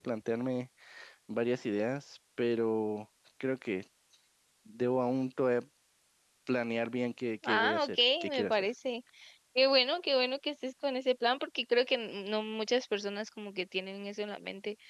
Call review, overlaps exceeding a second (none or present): present